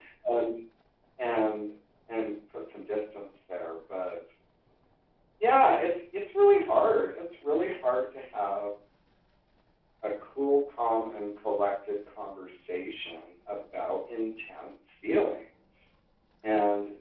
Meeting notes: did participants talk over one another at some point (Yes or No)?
No